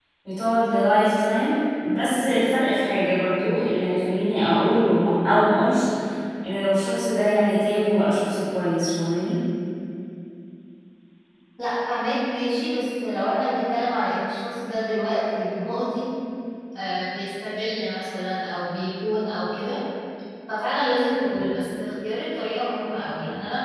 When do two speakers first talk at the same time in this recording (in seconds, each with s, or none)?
none